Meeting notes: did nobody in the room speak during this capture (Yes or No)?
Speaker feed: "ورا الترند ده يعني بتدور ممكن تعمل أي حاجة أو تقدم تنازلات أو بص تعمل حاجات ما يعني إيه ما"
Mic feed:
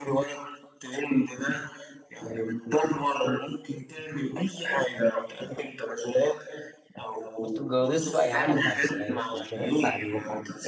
No